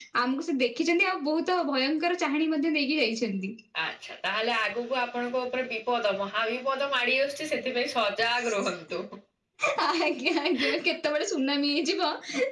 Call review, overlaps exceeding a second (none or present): none